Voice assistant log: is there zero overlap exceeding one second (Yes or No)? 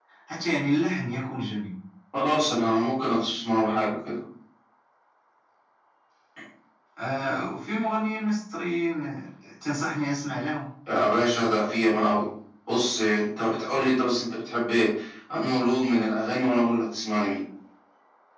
Yes